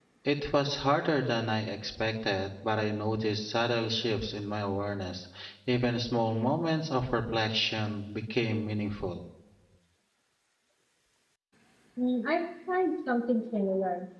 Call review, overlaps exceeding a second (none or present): none